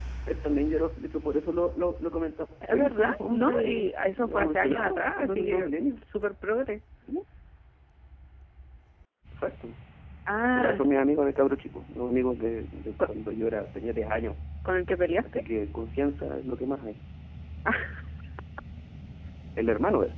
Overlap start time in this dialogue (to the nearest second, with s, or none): 3 s